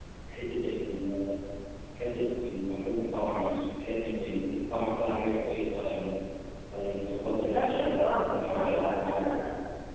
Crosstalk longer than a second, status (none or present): present